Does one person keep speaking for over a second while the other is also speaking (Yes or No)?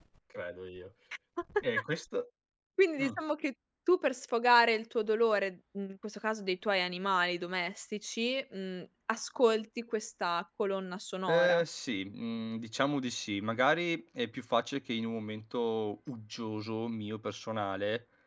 No